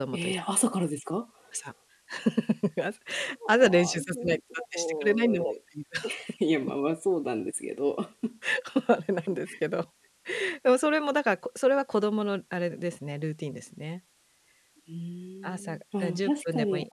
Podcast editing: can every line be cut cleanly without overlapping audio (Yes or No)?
No